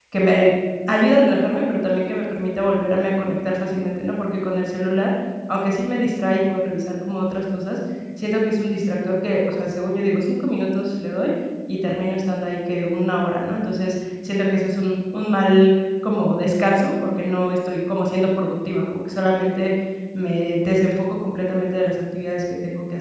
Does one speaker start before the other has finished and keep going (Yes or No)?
No